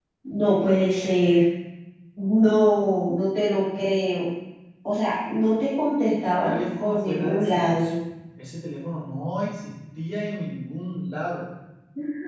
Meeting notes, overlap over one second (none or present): present